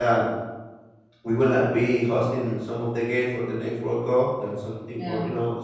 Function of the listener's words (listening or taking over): listening